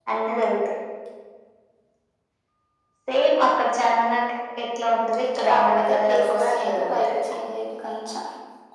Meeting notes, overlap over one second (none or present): present